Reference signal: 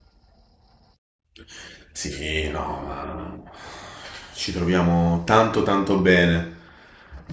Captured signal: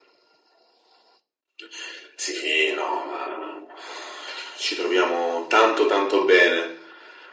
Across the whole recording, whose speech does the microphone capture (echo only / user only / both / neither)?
echo only